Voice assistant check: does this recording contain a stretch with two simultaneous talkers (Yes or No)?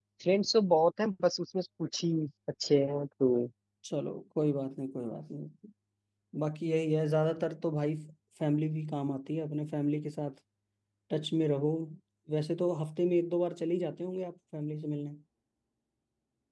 No